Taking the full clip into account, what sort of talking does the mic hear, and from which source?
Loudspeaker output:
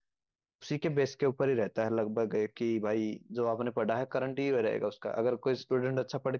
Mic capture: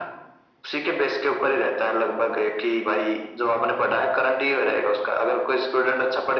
echo only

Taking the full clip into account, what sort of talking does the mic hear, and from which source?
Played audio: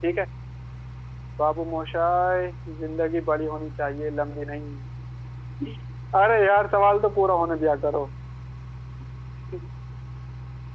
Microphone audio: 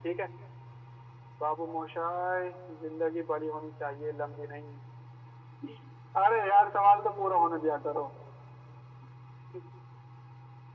echo only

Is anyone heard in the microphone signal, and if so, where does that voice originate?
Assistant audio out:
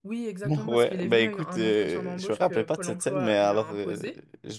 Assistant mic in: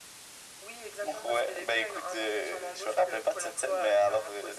echo only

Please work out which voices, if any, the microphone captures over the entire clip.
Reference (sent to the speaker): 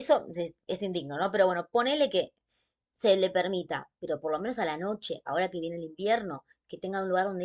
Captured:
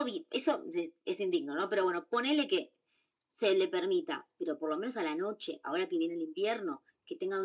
echo only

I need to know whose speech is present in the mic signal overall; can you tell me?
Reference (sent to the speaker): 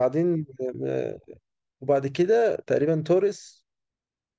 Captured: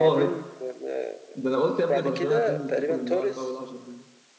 both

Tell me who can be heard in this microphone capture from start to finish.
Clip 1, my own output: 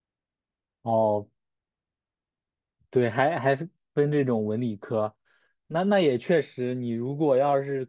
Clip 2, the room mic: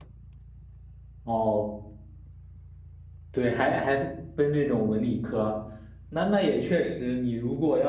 echo only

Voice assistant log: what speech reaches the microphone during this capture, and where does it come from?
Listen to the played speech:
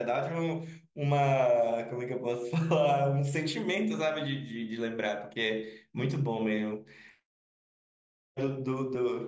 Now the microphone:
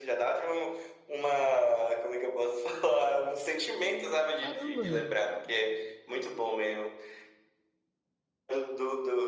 both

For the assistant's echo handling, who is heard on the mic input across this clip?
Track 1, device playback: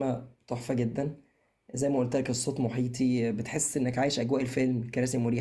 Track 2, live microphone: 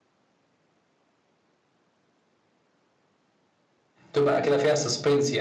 user only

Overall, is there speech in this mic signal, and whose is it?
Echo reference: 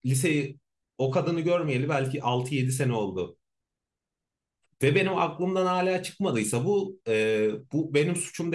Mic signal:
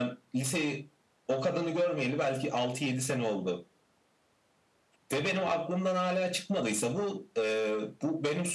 echo only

